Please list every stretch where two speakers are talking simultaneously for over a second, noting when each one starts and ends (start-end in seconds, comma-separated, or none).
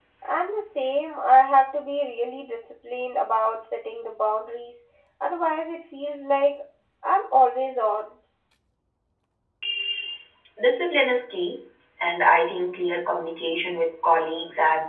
none